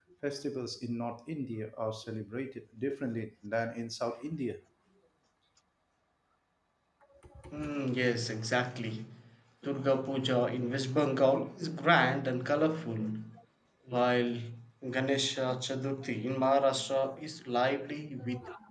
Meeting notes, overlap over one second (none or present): none